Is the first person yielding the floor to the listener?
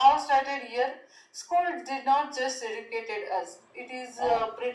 No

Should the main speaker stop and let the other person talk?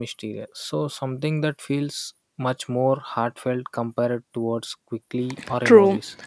Yes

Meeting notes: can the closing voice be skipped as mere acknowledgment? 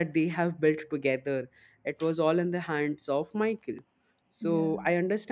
Yes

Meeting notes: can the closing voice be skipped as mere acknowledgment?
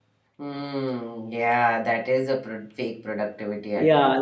No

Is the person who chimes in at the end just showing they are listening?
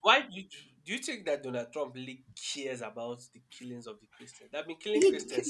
No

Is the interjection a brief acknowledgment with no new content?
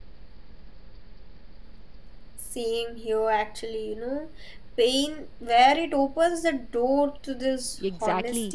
No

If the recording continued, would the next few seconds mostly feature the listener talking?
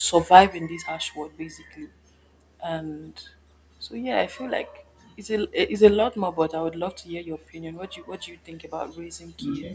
Yes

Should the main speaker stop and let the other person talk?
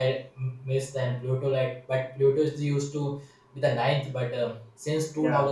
No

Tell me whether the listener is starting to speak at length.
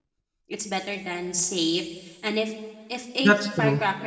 No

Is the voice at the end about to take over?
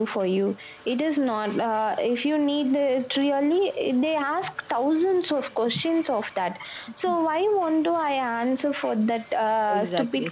Yes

